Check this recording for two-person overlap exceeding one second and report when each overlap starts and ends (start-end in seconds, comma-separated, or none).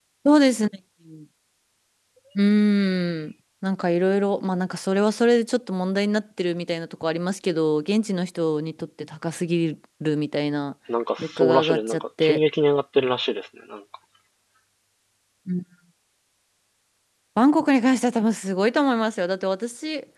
11.2-12.4